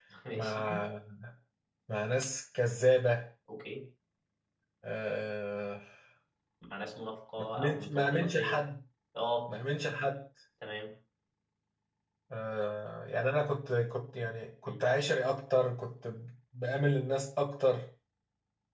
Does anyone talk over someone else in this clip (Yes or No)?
Yes